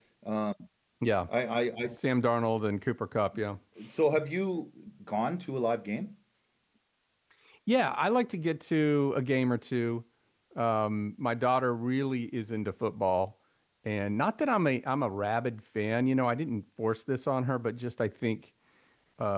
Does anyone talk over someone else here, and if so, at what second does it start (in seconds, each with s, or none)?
none